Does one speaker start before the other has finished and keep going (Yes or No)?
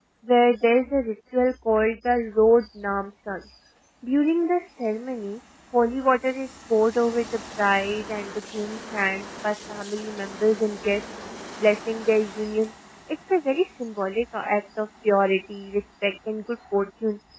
No